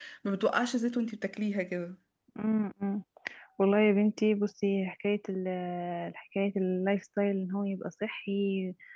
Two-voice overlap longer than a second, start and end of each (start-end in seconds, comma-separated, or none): none